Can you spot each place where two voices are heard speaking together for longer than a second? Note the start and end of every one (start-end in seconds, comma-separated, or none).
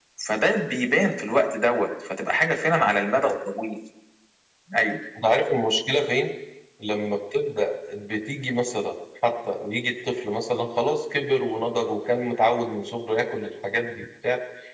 none